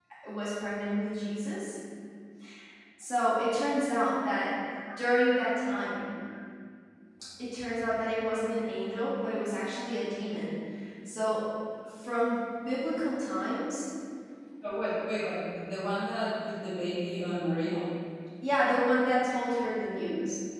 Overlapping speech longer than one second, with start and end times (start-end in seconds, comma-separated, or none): none